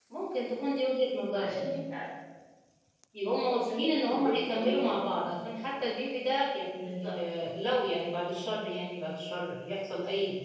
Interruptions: present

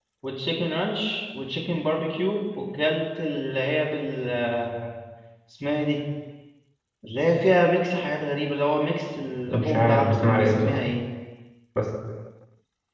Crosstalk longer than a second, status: present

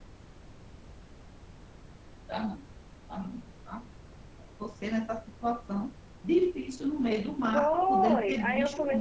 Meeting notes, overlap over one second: present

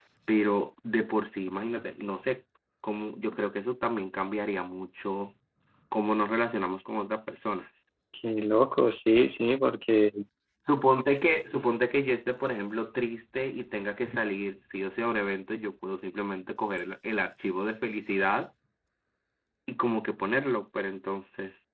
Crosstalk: none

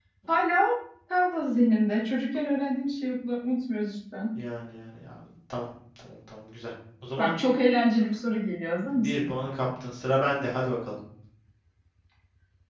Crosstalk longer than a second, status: none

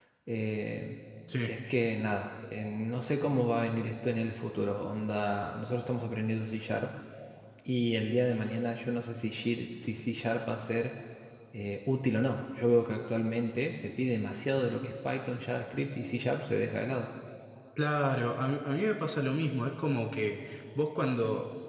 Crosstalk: none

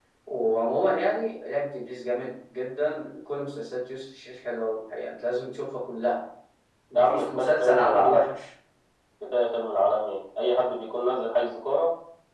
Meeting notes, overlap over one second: present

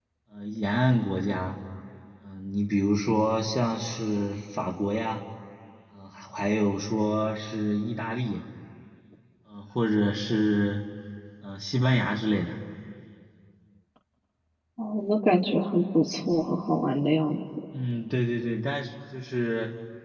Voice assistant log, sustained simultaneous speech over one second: none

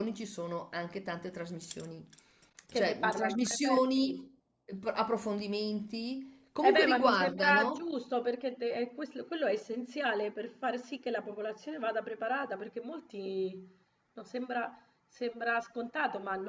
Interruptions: present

